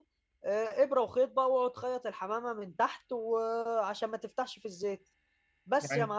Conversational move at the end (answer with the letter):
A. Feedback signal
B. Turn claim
B